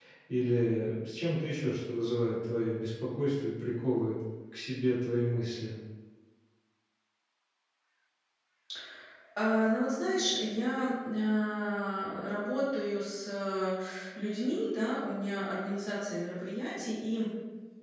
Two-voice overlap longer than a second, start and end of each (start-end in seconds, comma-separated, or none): none